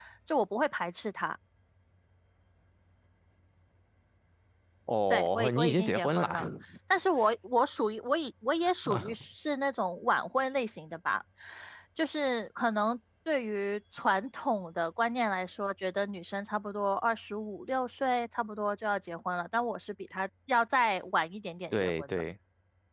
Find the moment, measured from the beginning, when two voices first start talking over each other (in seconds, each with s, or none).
5.1 s